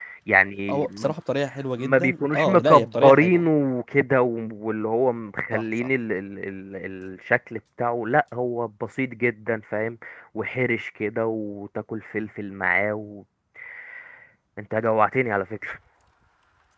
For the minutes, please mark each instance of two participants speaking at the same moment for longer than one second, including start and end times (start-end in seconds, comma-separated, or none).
1.8-3.5